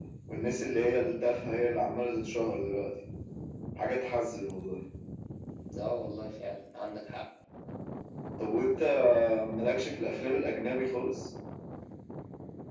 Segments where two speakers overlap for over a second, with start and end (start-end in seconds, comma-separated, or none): none